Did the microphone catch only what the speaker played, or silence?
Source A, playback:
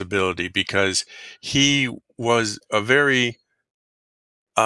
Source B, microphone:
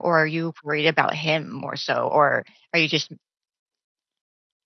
No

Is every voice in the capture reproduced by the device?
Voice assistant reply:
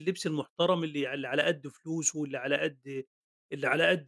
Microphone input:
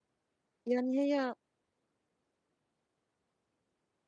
No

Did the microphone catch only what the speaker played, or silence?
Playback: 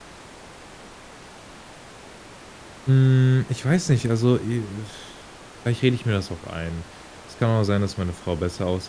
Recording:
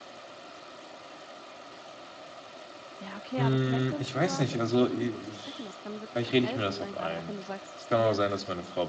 No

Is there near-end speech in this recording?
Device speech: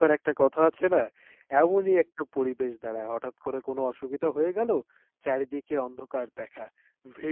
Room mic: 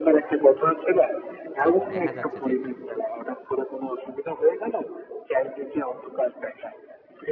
Yes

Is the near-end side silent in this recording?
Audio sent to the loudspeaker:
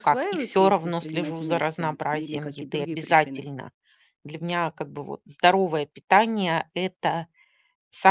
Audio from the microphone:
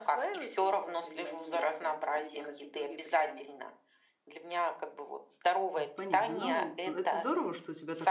No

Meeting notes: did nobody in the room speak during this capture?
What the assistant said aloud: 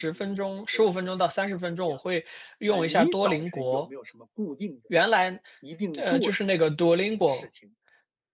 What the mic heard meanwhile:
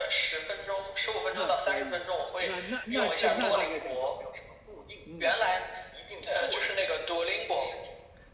No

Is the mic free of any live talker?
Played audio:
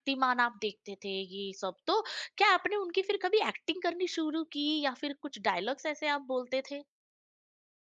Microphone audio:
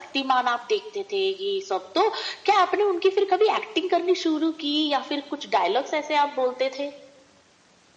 Yes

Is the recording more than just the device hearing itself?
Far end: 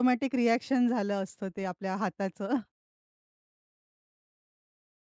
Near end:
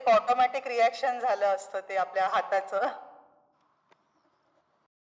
No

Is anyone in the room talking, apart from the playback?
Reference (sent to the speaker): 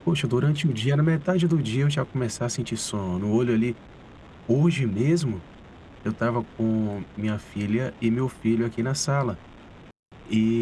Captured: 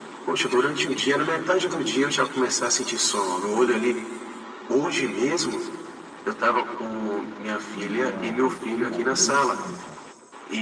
Yes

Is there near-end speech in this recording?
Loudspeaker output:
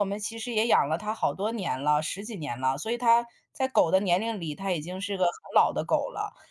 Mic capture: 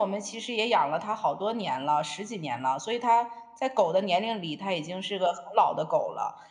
No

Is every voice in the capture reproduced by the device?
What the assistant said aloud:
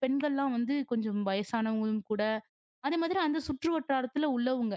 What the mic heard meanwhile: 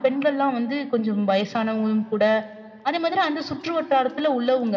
Yes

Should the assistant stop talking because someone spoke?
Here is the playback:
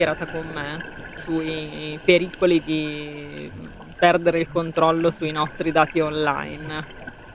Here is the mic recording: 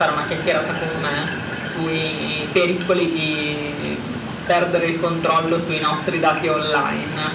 No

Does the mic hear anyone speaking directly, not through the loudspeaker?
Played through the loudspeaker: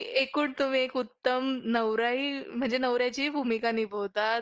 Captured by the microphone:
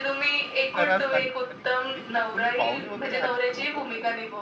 Yes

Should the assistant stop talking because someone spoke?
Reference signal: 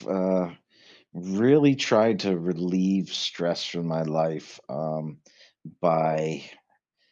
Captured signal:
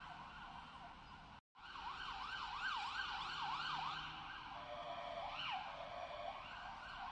No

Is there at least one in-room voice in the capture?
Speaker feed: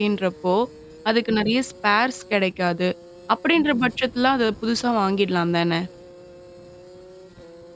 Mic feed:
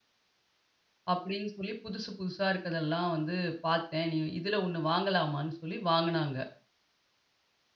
Yes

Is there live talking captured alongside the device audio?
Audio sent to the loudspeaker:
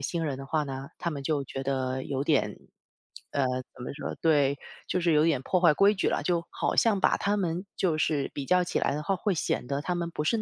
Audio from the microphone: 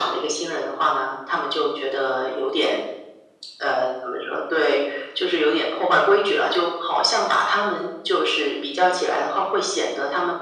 No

